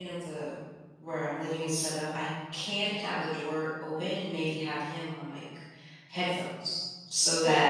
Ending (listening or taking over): taking over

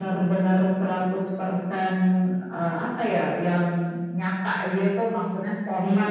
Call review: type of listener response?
taking over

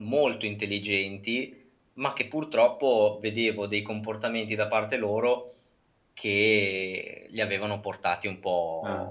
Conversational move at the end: taking over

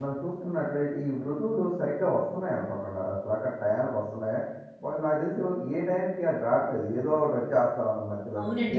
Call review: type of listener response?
taking over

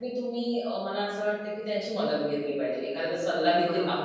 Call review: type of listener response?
listening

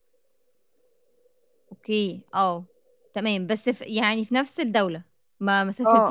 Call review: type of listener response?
taking over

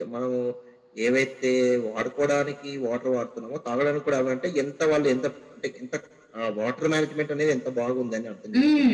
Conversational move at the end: taking over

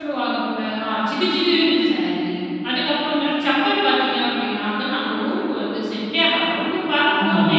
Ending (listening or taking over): listening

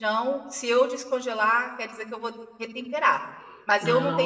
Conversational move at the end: listening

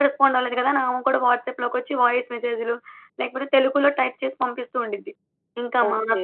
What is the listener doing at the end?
listening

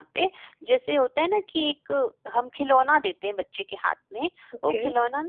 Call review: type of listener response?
listening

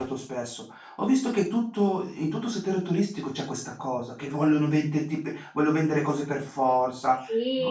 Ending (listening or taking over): taking over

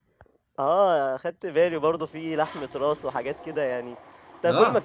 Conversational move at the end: listening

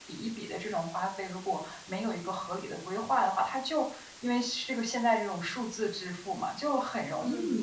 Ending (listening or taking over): listening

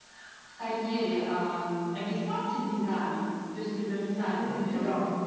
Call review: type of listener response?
taking over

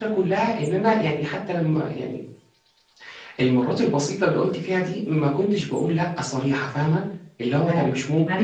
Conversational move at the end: taking over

